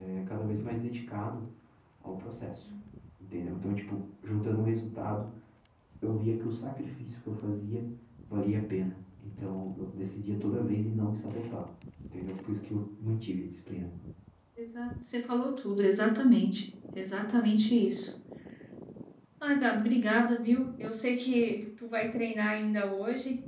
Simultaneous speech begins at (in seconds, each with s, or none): none